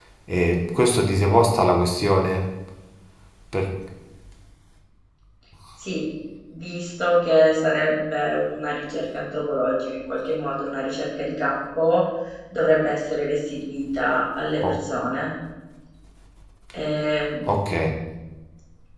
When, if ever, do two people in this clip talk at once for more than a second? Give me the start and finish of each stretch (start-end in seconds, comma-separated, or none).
none